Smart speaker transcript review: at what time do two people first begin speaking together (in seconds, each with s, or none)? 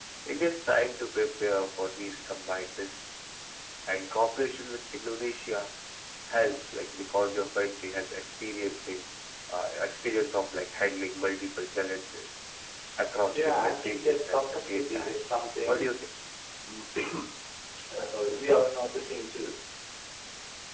13.3 s